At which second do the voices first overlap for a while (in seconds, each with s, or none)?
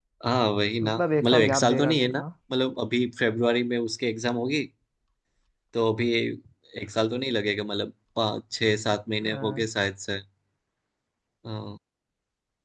0.8 s